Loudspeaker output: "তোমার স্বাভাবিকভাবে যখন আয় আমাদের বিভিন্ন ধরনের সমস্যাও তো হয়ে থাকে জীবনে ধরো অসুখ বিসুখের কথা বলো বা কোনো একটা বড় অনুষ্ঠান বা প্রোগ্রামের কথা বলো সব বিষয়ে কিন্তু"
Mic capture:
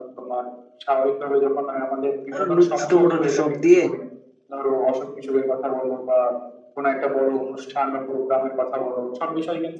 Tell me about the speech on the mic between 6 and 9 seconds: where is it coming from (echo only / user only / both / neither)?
echo only